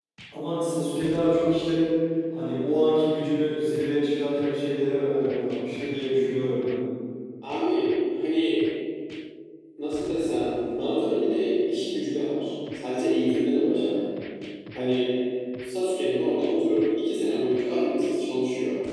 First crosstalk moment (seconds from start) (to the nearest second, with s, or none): none